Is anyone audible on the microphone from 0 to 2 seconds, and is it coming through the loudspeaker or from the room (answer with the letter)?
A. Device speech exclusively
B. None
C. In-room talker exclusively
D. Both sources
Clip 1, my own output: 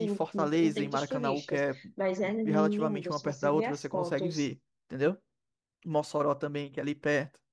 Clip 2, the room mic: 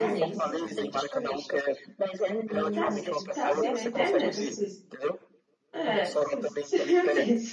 D